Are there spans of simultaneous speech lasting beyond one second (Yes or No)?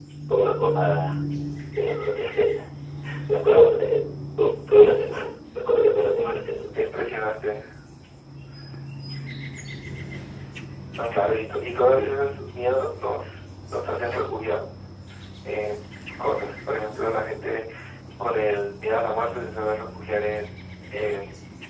No